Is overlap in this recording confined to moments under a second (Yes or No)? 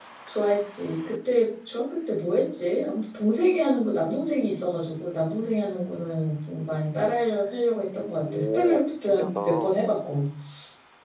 No